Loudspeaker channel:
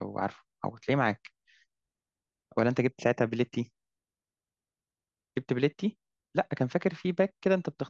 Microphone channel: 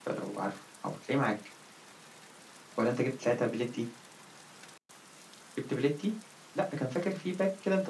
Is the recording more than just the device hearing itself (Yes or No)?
No